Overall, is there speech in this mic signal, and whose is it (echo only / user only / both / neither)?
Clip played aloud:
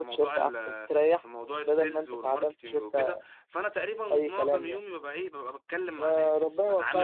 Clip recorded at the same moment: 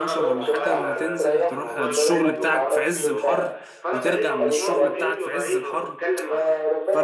both